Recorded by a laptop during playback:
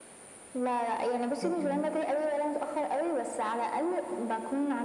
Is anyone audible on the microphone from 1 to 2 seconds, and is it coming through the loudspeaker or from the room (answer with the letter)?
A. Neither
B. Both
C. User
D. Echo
B